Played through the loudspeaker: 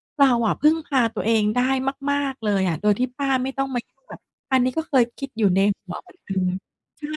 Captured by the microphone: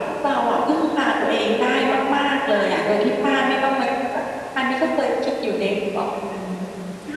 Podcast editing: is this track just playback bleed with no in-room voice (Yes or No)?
Yes